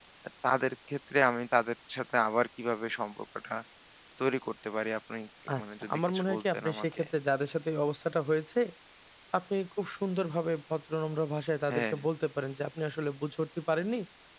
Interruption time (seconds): 5.6 s

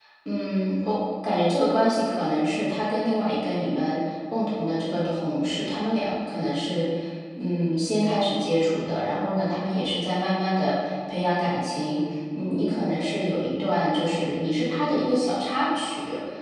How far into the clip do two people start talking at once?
none

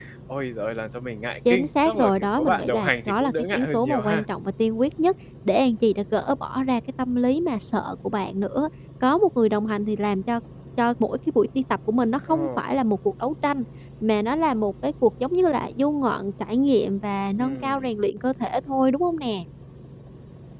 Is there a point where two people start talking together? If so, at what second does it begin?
1.5 s

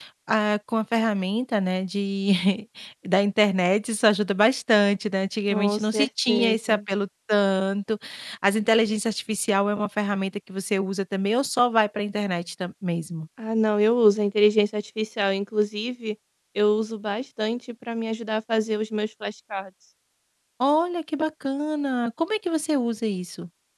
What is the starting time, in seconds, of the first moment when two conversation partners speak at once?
5.5 s

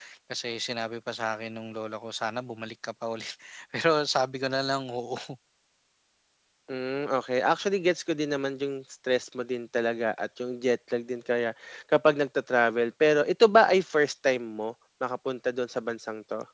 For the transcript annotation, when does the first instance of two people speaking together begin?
none

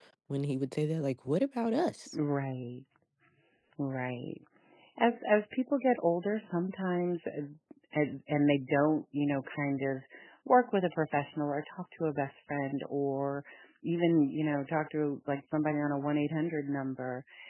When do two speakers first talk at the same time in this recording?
none

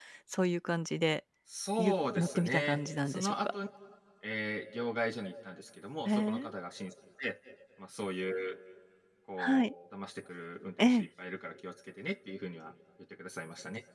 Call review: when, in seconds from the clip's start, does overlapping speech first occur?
1.8 s

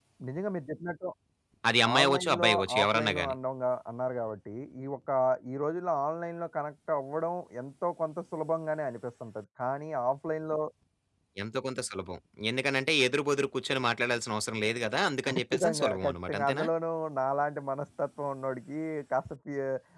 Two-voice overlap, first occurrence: 2.0 s

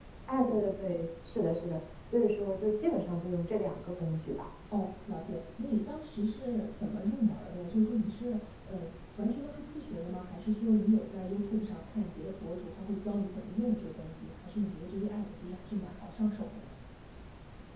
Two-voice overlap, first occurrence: none

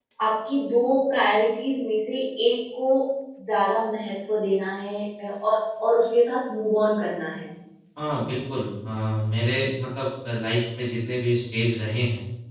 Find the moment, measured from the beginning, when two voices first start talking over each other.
none

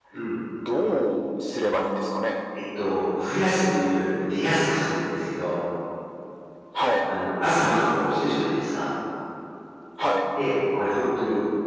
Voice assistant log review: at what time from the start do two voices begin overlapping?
none

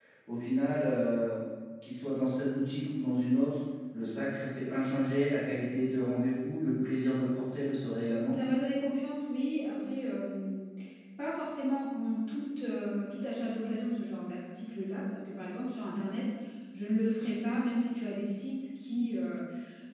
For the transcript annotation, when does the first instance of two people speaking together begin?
none

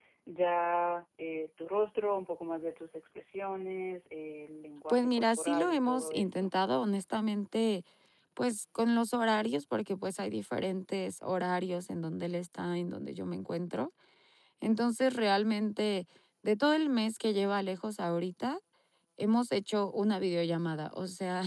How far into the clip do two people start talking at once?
4.9 s

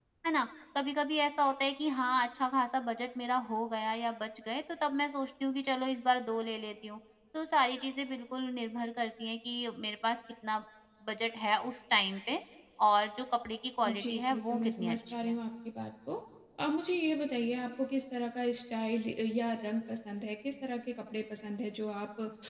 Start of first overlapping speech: 13.8 s

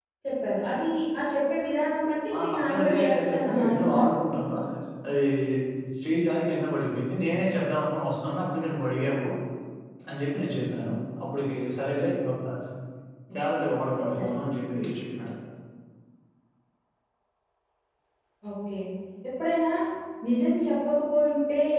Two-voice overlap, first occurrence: 2.4 s

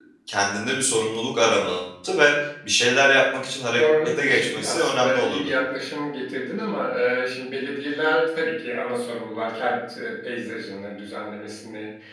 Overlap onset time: 3.8 s

